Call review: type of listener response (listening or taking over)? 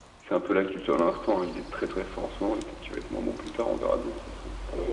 taking over